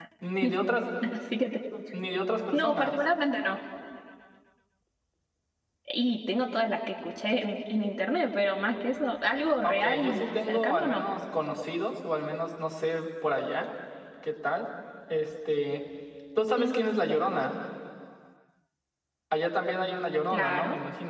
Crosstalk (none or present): present